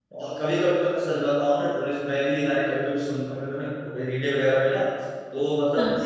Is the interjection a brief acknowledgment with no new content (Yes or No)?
Yes